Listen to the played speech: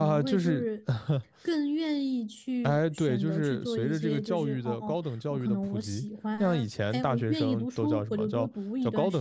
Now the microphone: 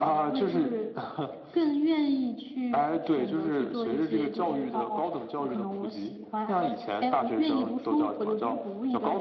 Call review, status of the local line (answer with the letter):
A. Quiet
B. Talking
A